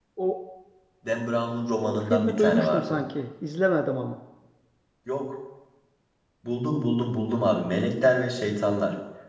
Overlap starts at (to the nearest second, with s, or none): 2 s